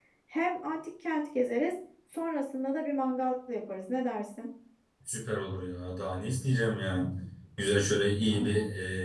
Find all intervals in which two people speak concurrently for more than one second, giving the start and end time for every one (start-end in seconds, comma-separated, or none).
none